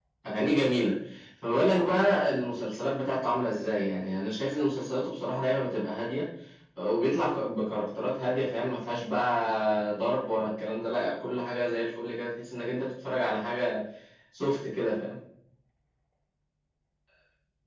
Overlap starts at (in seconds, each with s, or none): none